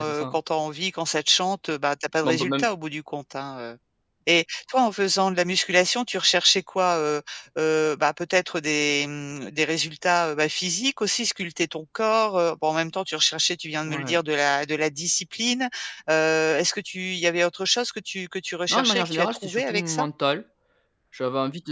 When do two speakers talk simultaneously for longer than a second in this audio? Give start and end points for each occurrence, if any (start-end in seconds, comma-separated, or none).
18.7-20.0